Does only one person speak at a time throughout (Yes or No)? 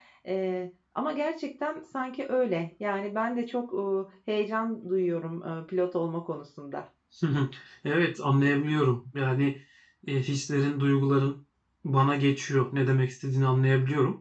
Yes